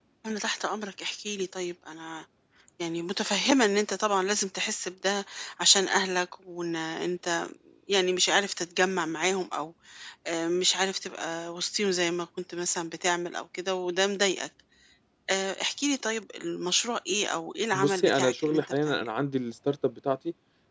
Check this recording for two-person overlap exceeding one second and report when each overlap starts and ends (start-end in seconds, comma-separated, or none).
17.7-19.1